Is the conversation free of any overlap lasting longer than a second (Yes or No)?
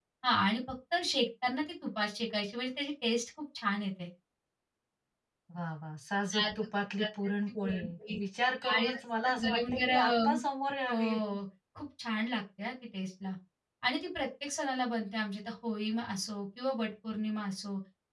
No